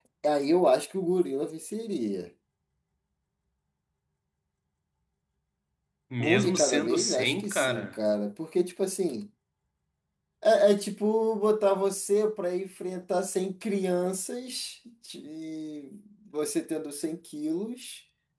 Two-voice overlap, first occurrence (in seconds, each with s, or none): 6.2 s